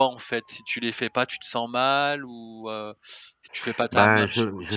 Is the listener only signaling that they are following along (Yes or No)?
No